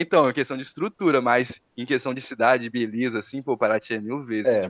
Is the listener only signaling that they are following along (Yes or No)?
No